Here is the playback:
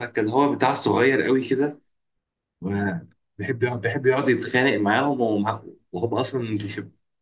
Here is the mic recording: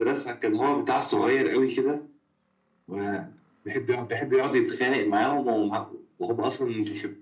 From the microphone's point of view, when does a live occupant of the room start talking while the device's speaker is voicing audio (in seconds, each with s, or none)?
none